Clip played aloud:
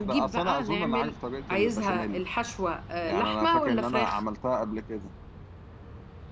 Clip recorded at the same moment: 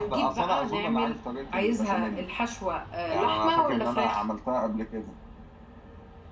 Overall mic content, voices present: echo only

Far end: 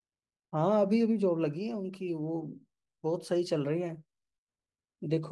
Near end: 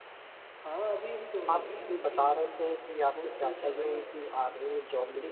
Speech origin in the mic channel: both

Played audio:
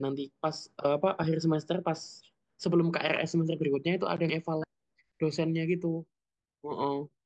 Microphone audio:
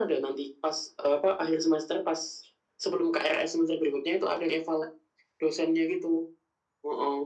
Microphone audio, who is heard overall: echo only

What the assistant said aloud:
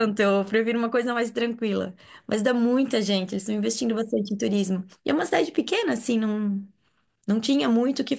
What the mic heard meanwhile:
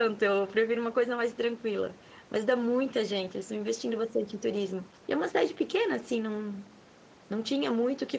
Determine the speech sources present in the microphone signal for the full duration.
echo only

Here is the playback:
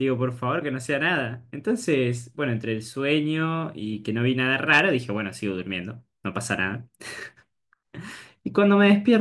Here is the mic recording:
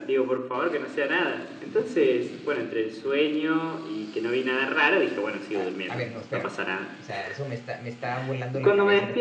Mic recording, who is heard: both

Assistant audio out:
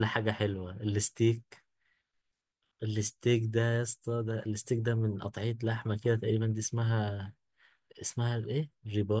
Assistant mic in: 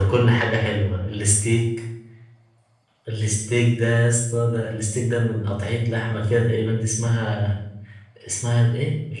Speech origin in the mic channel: echo only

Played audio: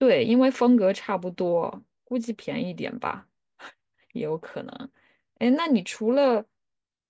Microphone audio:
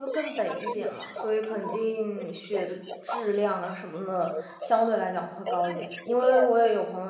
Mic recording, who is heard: both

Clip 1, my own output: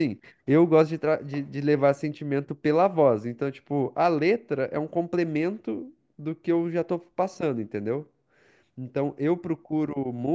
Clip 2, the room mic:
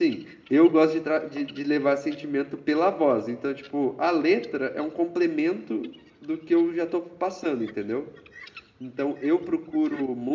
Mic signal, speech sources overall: echo only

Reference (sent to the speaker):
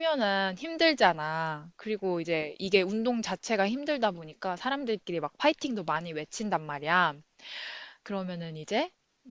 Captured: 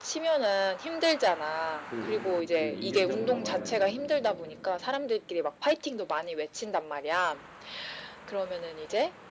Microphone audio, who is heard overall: both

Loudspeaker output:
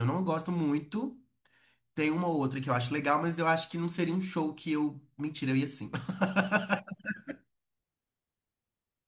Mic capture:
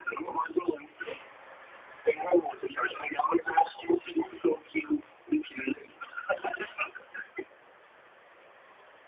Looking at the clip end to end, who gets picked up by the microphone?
echo only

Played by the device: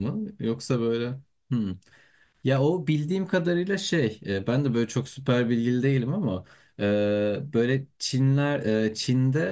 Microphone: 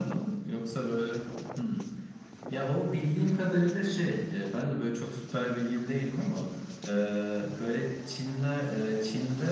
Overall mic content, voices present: echo only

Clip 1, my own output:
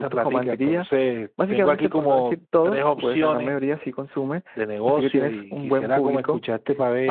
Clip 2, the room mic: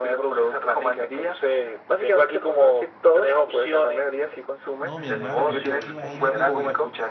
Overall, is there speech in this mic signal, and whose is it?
both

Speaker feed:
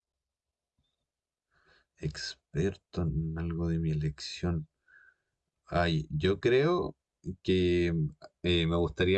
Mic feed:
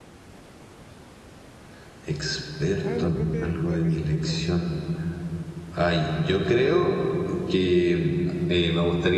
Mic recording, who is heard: both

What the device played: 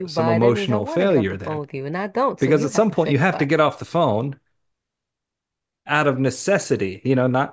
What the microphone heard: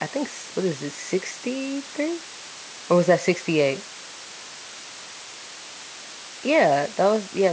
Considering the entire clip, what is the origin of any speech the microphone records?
user only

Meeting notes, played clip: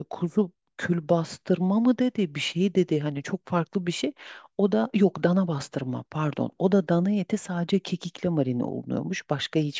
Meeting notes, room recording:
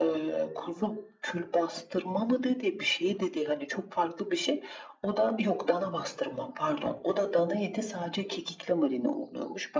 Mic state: echo only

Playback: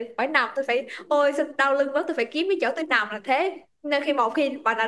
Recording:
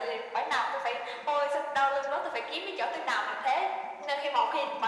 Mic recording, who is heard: echo only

